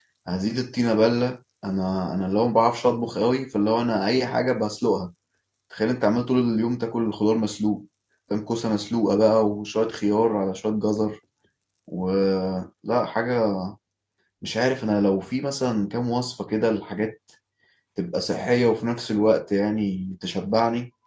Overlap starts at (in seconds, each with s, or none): none